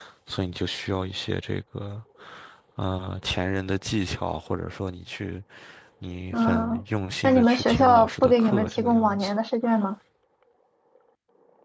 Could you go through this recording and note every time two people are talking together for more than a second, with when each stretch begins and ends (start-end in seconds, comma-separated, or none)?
7.2-9.3